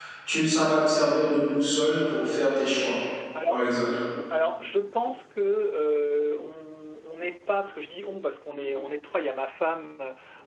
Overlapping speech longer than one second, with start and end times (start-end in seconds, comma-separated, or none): none